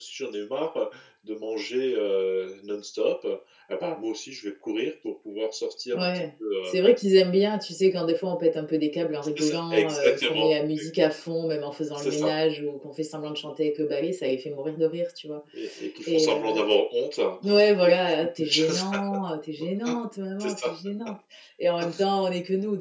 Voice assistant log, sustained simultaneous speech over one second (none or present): present